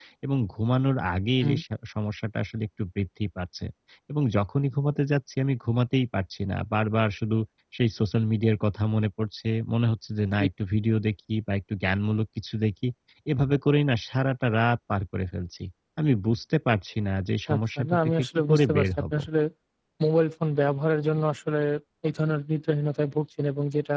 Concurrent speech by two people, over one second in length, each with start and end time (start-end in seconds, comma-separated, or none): 17.5-19.1